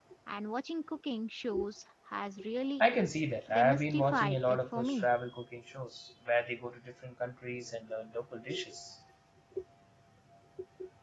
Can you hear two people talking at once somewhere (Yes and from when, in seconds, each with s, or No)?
Yes, from 3.5 s